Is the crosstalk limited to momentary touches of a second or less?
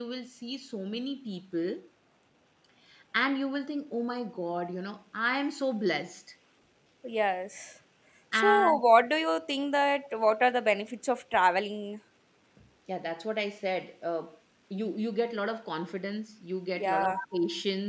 Yes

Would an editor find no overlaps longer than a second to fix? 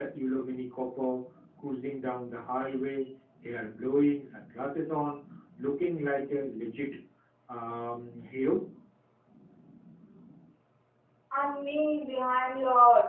Yes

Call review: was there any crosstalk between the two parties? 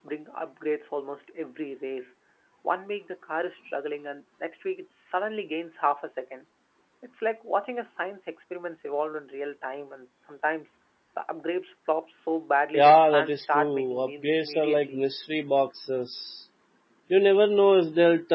Yes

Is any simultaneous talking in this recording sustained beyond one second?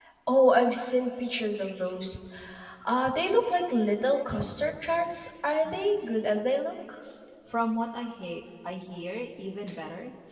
No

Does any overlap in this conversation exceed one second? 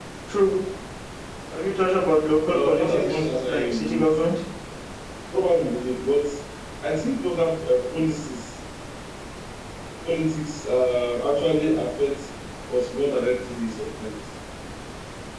Yes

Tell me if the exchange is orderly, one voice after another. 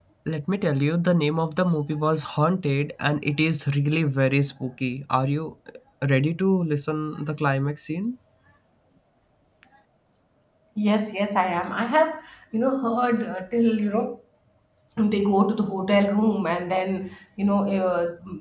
Yes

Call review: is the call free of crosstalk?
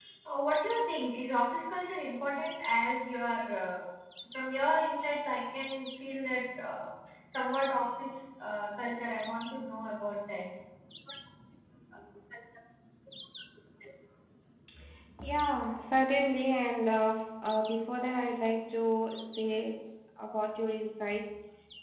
Yes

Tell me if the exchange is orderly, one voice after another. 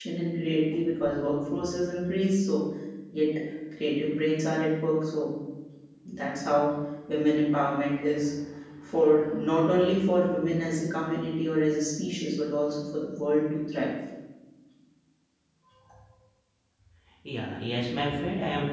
Yes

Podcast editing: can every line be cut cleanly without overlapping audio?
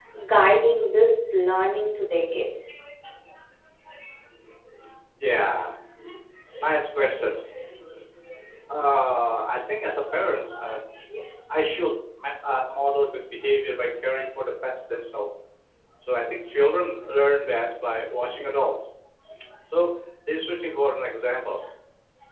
Yes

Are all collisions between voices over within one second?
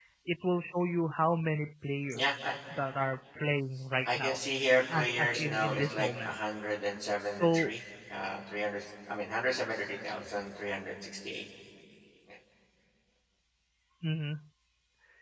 No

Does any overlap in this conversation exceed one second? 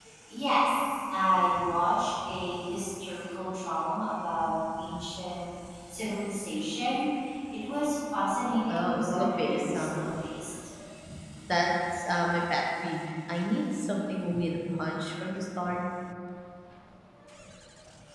Yes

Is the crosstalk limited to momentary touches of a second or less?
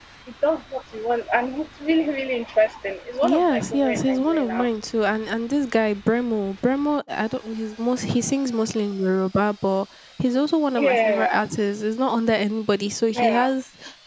No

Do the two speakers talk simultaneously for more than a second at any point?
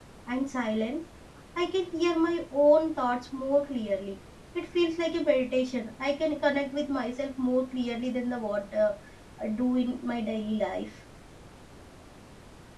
No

